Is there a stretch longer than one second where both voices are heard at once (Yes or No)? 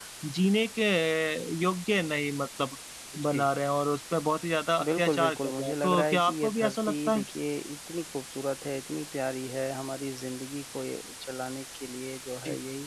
Yes